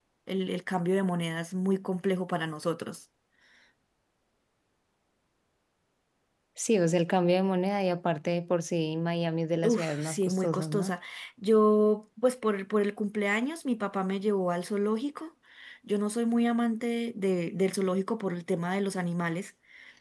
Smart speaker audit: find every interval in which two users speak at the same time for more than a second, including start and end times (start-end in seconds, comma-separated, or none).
9.6-10.9